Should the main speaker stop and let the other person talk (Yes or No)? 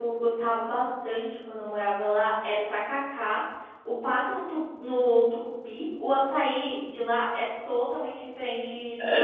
Yes